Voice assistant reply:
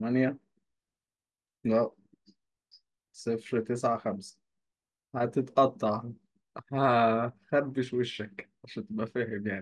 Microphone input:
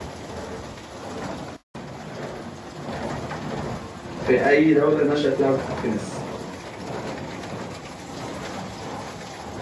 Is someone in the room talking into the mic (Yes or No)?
Yes